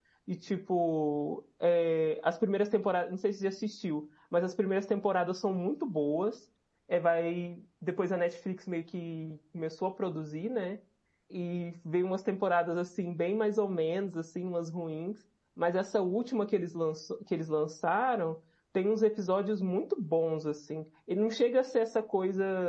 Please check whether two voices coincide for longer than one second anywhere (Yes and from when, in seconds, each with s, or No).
No